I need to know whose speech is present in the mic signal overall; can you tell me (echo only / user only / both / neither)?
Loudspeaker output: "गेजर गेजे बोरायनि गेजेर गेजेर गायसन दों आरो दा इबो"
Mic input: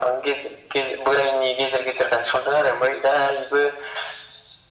echo only